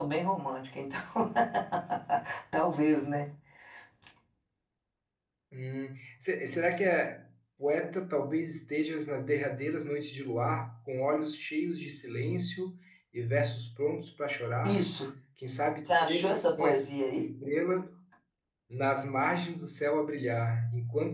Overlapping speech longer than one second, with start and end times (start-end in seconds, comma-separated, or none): 15.8-17.3